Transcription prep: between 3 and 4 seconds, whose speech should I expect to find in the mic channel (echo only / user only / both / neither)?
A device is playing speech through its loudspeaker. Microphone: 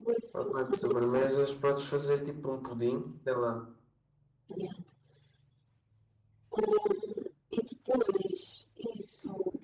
user only